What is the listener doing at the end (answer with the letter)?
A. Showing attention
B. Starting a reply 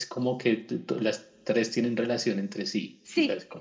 B